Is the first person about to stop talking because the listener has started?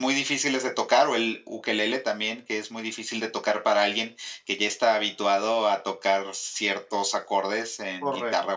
Yes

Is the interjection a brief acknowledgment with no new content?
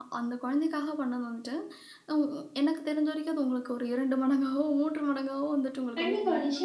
No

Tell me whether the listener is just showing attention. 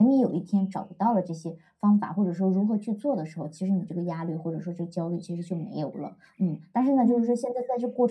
Yes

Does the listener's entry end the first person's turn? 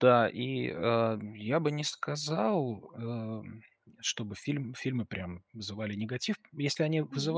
No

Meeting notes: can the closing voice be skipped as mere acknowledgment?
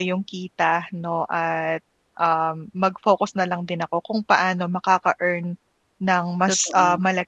Yes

